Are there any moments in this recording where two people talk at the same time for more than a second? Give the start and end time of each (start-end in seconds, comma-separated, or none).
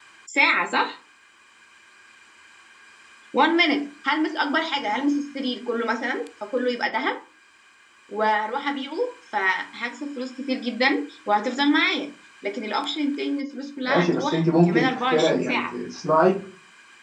13.8-15.7